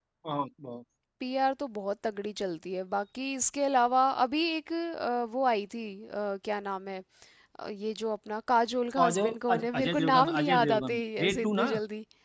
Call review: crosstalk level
present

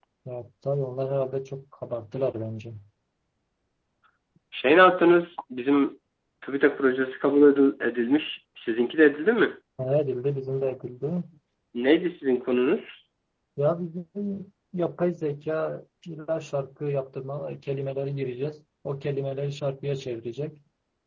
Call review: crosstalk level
none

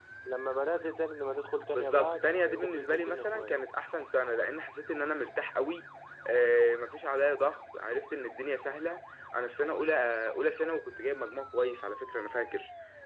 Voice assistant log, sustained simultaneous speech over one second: present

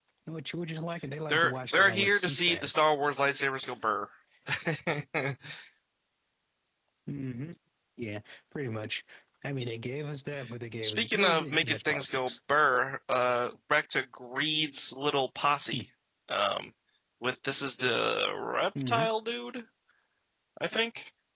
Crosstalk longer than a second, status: present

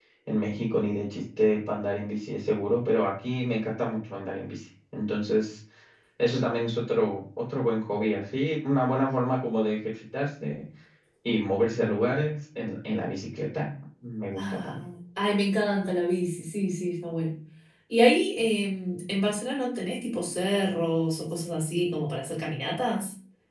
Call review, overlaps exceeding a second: none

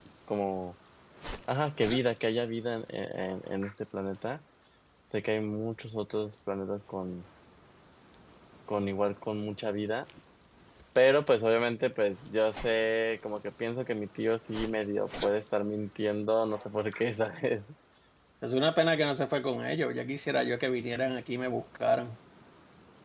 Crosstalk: none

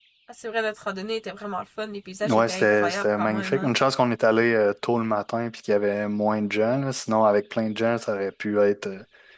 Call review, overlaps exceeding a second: present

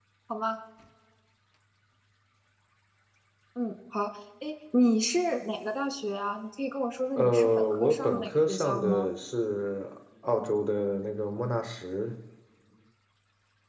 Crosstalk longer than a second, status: present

